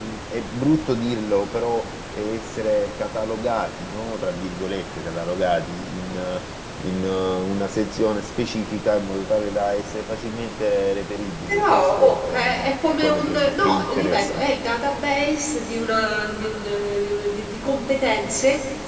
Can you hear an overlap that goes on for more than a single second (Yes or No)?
Yes